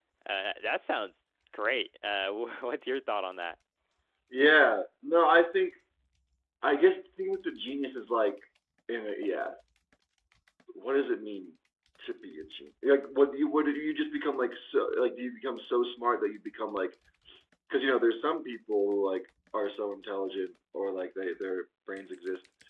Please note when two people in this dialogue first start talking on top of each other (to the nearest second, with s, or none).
none